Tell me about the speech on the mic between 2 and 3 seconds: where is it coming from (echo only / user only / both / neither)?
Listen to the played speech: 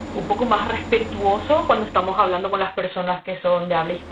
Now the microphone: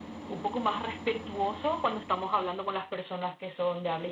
echo only